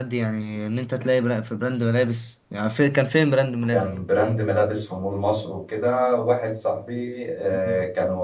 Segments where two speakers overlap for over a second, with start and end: none

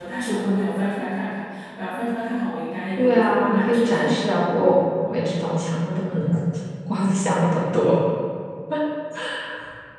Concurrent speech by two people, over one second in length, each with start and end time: 3.0-4.3

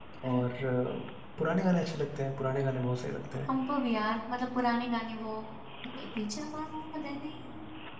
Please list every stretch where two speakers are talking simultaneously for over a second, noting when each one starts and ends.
none

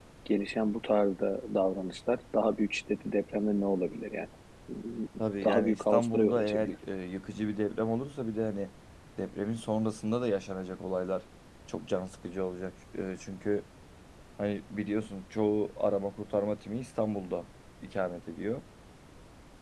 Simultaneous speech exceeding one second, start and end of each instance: 5.4-6.8

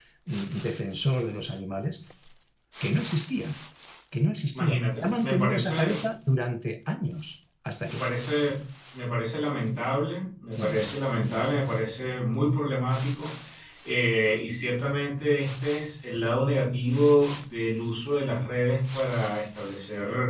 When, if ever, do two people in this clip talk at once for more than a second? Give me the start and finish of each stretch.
4.5-6.0

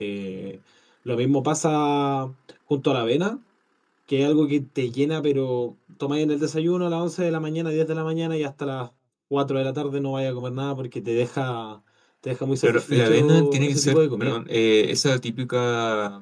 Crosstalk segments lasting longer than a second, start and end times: 12.6-14.4

